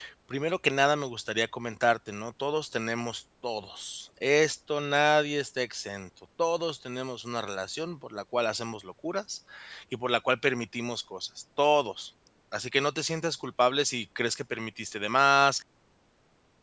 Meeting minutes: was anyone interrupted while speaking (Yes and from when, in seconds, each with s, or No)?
No